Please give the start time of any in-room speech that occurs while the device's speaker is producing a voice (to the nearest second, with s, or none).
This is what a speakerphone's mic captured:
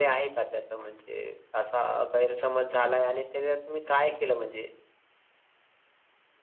none